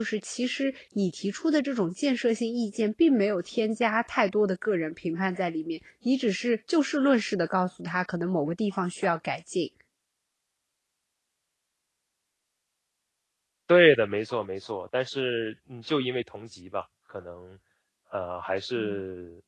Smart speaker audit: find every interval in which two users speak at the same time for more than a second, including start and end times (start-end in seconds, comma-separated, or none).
none